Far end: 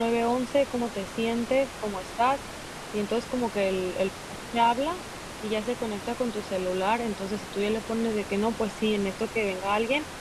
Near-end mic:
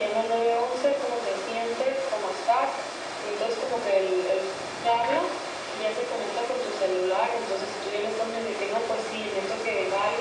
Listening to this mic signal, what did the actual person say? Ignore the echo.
none

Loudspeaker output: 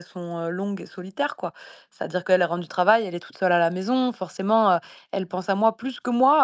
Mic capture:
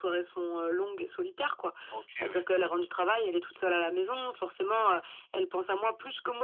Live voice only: OK, oui,

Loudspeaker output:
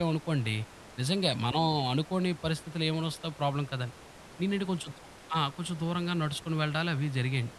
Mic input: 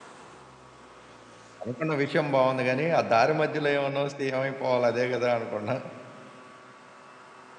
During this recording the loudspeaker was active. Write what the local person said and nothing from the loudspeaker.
అనుకున్న విషయం బావుంది గానీ, ఆ దారి మధ్యలో ఏమన్నా వస్తే ఏమైపోవాలి అదే గదా! అనుకున్నా.

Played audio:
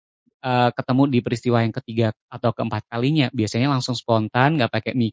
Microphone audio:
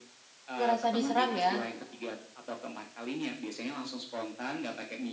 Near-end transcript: ngerasa diserang ya,

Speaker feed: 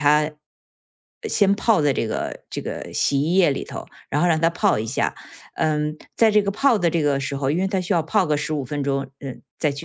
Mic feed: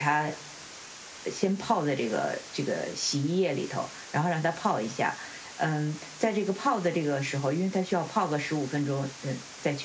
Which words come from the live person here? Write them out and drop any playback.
none

